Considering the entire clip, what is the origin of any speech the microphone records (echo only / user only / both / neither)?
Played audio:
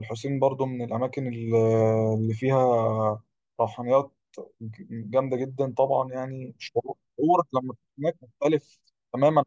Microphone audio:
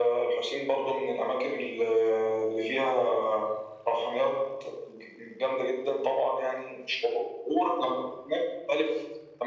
echo only